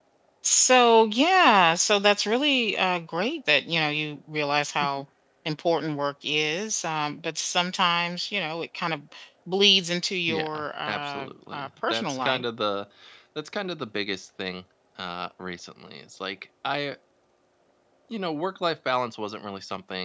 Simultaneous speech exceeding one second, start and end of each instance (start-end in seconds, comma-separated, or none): 10.3-12.4